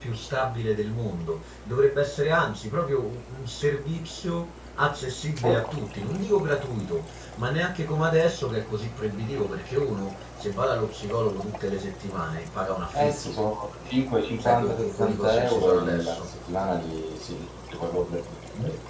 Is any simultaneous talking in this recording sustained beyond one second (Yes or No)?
Yes